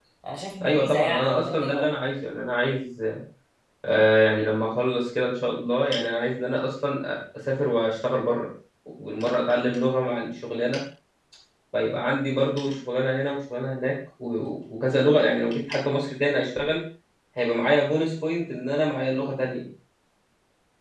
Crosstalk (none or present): present